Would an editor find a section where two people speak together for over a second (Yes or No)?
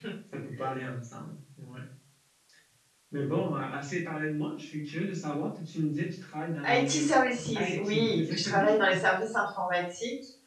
Yes